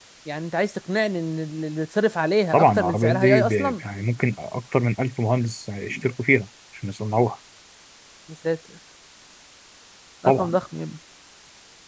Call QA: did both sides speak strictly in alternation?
No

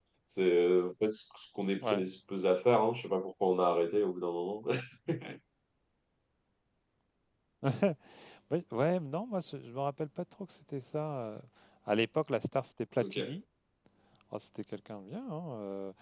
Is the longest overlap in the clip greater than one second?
No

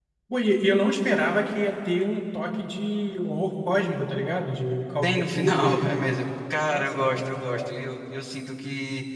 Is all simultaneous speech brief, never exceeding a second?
No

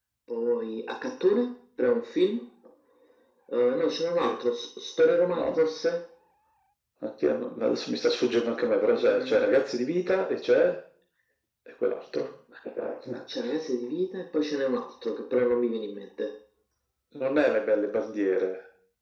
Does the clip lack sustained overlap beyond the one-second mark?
Yes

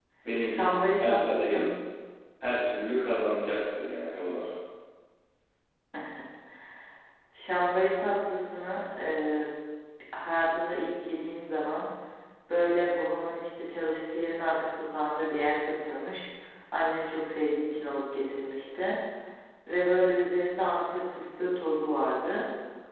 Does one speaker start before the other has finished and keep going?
Yes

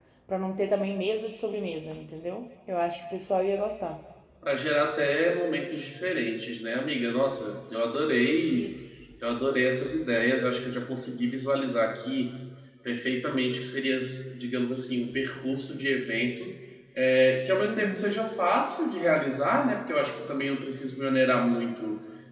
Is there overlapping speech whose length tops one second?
No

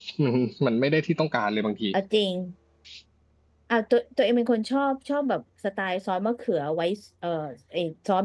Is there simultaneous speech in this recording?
No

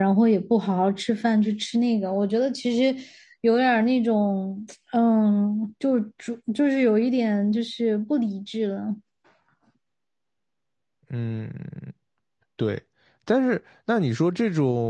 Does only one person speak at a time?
Yes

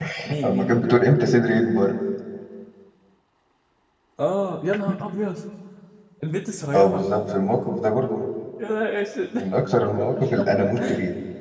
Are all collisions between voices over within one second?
Yes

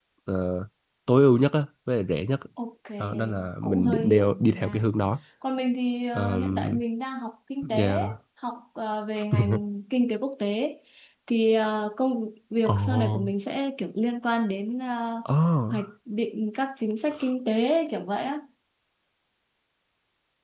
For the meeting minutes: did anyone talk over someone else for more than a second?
Yes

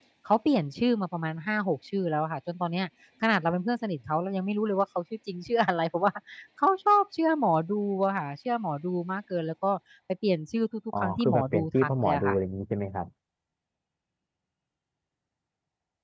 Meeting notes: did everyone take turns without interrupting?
No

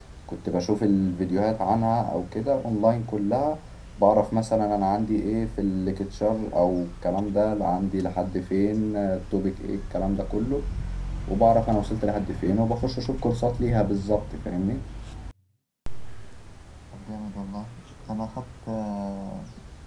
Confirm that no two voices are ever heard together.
Yes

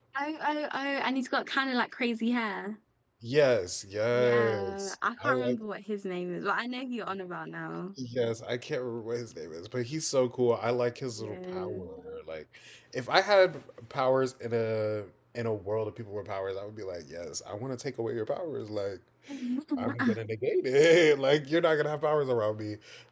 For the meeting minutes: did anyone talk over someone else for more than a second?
Yes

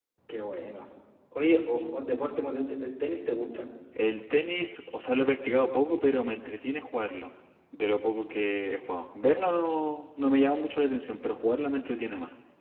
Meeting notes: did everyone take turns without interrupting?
Yes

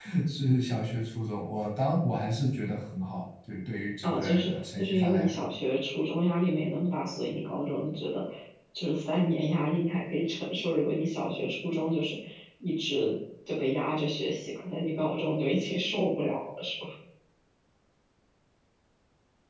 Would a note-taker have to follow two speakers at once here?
Yes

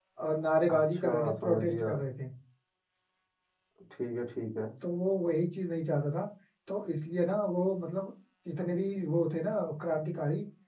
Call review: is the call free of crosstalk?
No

